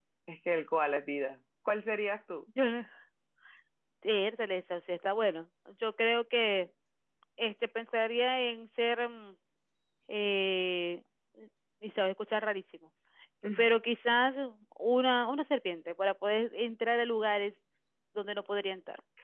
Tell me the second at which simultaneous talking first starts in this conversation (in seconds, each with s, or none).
none